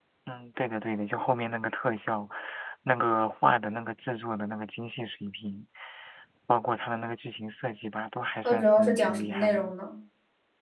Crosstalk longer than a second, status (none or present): present